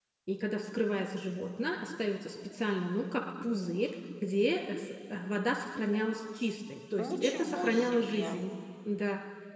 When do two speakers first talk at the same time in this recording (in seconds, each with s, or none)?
7.0 s